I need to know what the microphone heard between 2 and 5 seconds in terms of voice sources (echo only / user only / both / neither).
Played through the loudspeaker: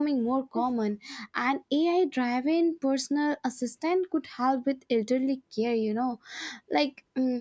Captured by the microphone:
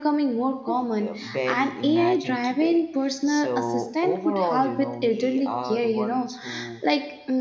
both